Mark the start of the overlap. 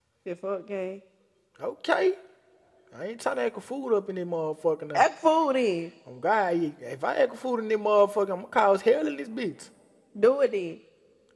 none

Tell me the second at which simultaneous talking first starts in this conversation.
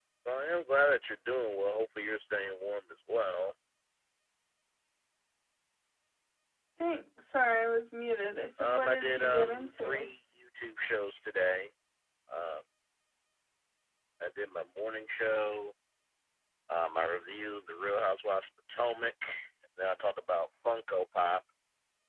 9 s

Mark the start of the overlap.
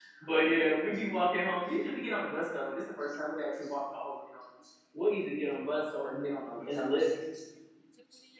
none

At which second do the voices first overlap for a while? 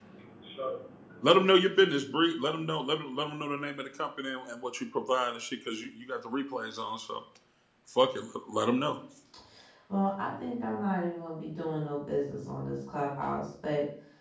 none

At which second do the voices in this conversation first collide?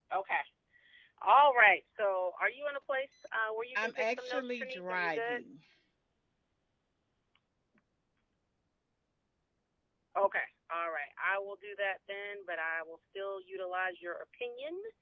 4 s

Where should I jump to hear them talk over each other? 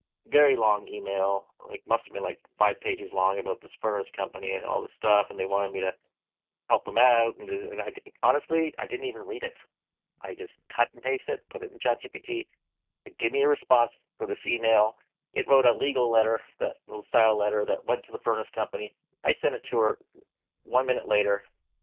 none

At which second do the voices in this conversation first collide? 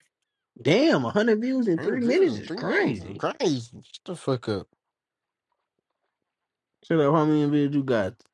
2 s

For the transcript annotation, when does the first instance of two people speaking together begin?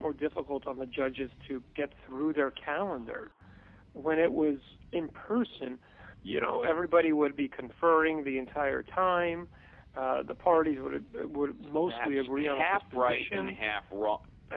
12 s

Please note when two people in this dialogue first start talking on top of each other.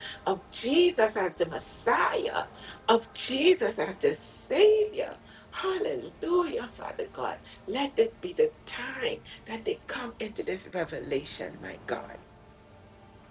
none

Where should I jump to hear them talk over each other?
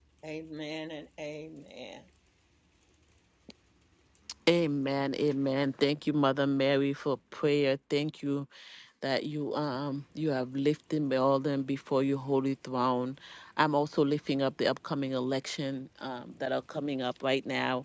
none

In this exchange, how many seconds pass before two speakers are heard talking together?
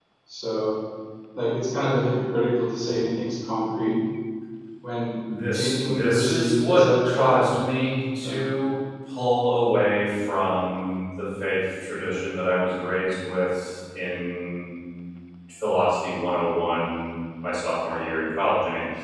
6 s

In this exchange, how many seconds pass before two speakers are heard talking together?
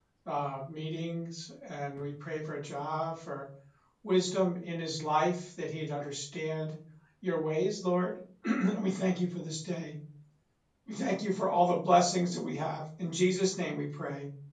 none

